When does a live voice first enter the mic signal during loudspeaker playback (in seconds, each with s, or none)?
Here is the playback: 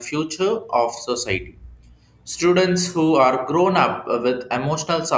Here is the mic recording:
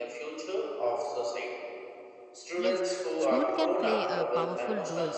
2.6 s